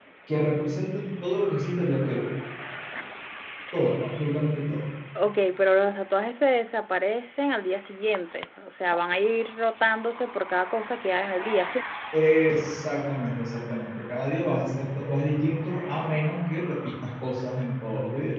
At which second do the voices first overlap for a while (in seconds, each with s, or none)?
none